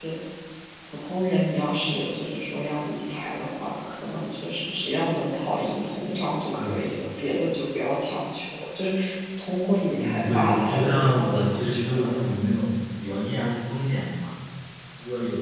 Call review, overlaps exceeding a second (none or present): present